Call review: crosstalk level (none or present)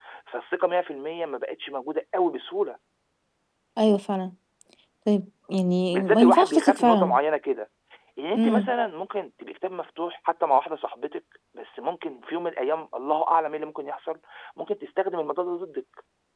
present